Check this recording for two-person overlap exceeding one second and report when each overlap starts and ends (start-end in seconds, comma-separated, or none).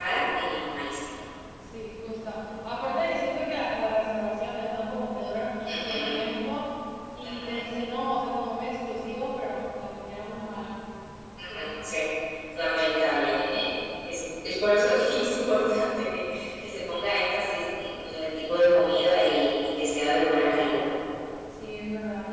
none